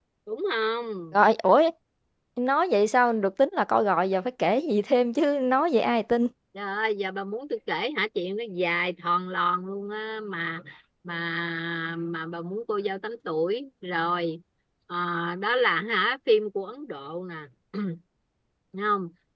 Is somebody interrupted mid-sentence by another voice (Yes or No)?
No